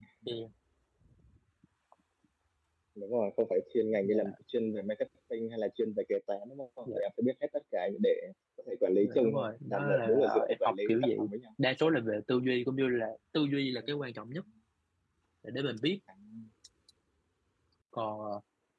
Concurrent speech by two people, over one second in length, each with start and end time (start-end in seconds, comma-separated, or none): 9.0-11.3